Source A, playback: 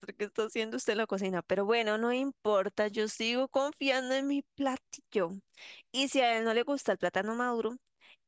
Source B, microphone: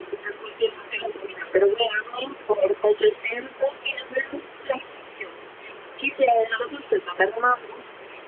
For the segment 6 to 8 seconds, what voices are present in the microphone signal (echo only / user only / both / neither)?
echo only